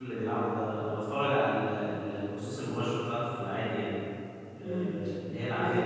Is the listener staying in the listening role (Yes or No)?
No